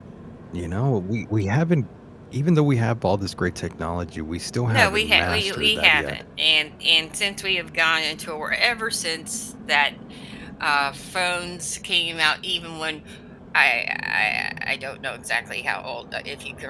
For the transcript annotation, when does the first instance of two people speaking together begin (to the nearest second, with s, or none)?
5 s